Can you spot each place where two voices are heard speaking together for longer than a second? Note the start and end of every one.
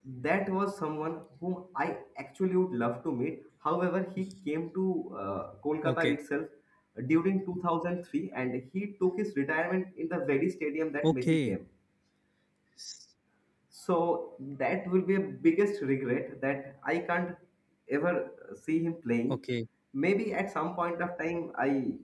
none

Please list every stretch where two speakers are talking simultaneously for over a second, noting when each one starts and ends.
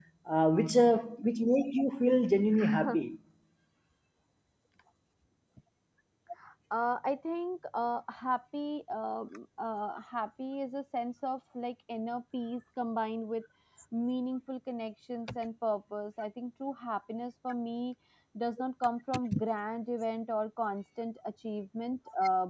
none

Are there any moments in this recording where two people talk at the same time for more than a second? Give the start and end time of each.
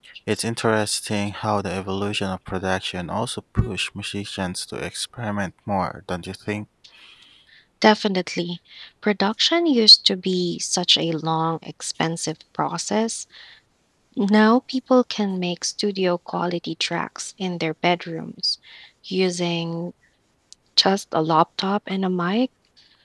none

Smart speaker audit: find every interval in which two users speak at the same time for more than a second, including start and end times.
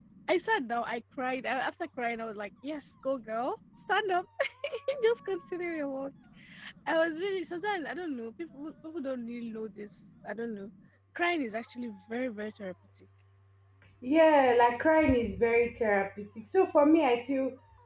none

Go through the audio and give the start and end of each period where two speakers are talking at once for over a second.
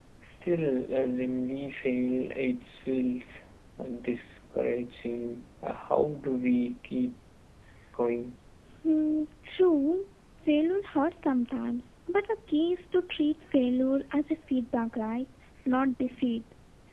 none

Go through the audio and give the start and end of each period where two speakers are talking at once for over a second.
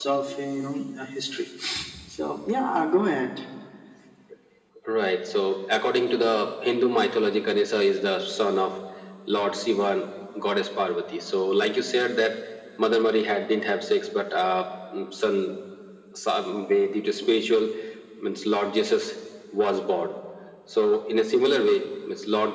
none

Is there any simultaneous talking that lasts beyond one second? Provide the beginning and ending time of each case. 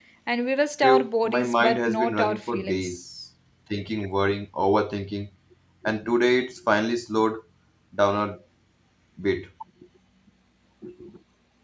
0.8-3.0

